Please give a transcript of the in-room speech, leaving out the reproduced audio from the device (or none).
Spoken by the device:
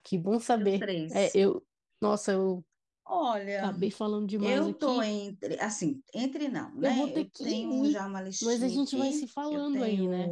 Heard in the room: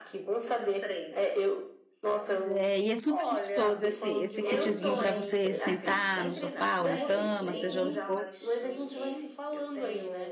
Pois é, e é super gostoso esse, esse kitzinho para você sentar no sofá ou na cama, seja onde for.